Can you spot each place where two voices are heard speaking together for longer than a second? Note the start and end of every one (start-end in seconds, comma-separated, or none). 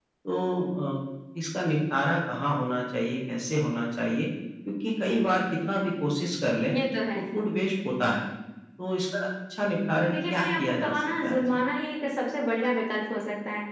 10.1-11.4